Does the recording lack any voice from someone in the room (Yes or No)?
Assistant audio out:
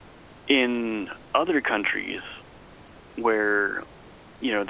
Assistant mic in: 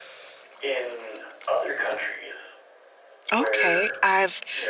No